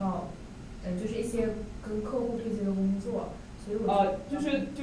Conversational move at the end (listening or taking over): taking over